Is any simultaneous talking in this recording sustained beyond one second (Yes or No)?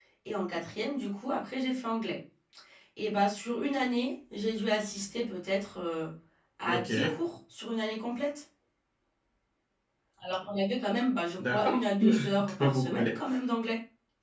Yes